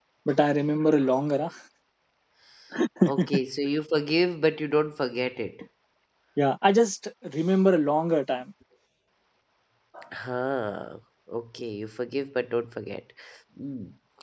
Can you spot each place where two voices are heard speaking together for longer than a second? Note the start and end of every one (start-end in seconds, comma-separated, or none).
none